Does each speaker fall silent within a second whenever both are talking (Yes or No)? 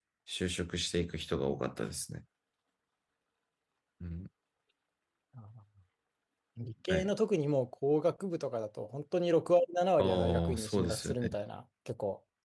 No